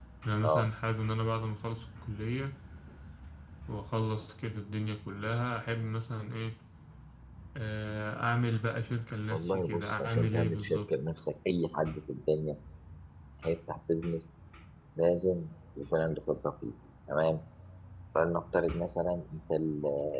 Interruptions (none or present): present